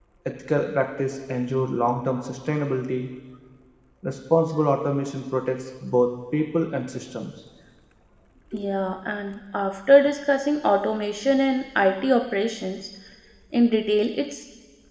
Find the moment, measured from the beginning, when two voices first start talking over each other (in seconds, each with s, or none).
none